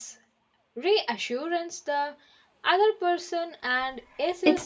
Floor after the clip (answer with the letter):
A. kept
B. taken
B